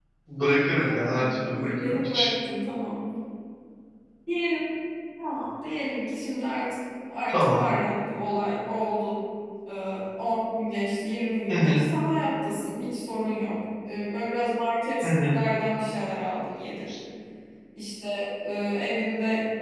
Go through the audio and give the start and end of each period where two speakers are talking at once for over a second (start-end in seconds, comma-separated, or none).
0.7-2.3